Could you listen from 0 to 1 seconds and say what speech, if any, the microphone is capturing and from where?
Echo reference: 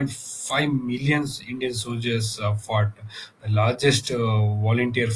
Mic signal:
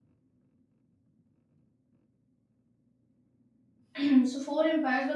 neither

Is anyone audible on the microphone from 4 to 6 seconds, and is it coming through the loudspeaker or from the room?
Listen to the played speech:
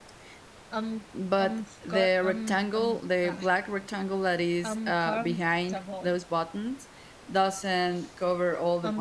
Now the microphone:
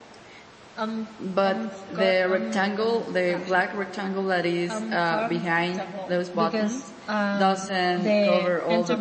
echo only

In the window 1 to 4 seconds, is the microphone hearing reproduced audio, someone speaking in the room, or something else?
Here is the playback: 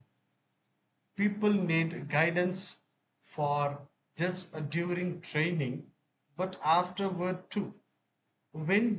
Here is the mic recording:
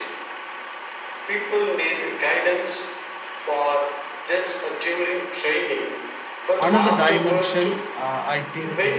echo only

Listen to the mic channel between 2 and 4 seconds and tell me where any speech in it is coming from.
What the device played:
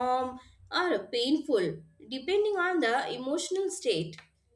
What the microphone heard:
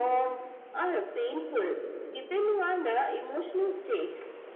echo only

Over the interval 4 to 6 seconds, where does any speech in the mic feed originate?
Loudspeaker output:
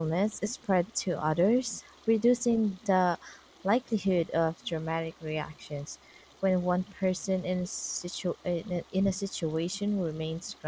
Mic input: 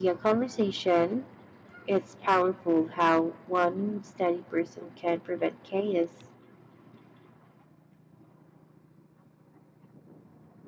user only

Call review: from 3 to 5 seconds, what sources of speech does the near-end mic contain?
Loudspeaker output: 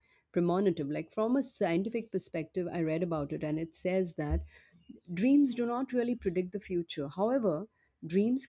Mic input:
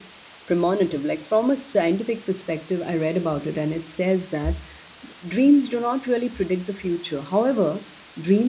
echo only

